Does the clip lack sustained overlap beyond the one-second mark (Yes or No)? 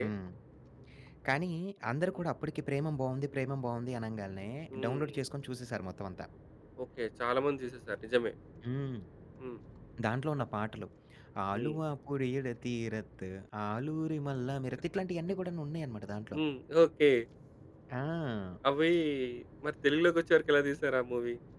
Yes